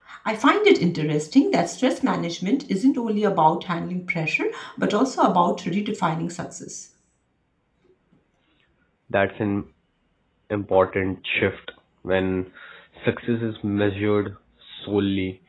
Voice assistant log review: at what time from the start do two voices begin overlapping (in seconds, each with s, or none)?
none